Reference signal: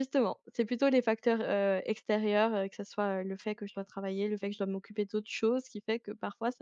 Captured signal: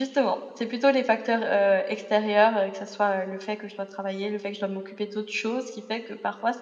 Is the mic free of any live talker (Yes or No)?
Yes